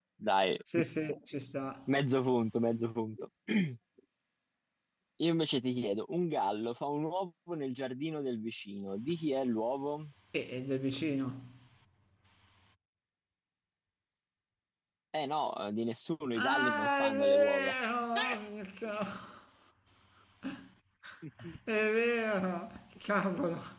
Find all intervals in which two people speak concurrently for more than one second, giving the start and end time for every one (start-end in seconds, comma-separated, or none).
16.4-17.7